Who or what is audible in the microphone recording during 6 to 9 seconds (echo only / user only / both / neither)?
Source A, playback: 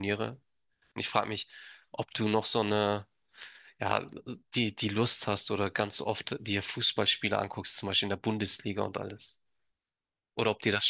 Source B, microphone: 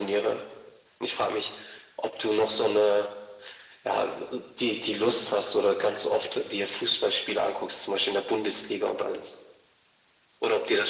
echo only